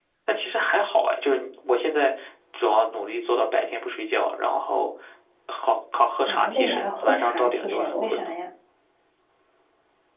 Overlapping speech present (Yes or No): Yes